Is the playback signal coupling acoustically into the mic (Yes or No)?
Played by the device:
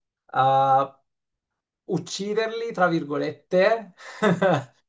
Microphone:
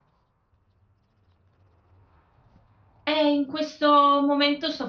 No